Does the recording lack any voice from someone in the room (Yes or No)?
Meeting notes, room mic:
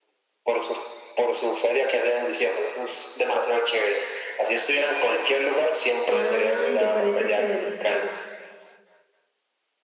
No